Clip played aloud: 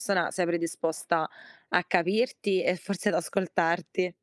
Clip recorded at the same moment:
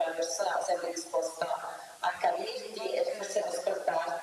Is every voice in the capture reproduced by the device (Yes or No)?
No